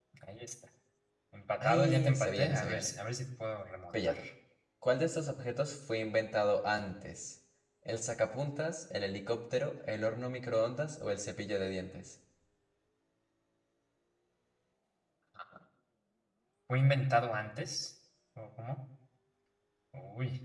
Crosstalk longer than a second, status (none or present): present